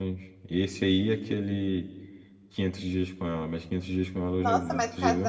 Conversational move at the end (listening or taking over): taking over